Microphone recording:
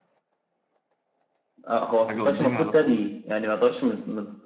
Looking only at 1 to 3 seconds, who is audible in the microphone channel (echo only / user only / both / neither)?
both